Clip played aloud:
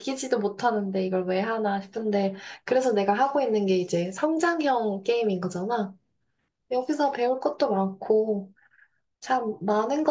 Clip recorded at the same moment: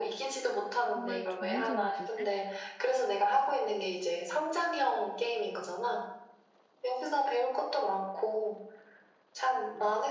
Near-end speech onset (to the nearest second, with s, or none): 1 s